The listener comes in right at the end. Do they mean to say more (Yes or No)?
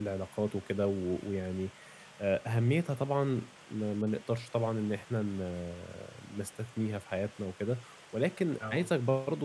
No